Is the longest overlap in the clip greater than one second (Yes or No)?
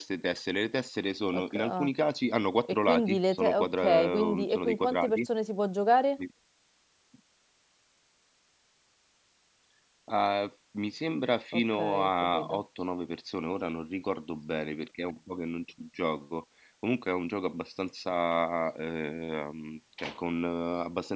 Yes